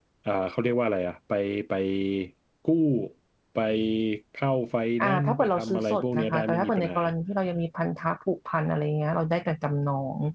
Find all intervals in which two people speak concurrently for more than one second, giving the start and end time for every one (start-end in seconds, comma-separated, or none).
5.0-7.0